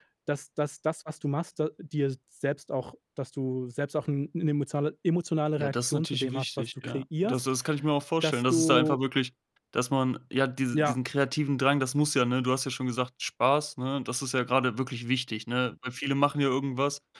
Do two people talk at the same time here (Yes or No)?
Yes